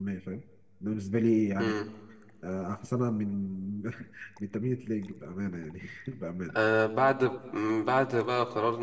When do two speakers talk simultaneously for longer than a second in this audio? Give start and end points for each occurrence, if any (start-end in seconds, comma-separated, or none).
none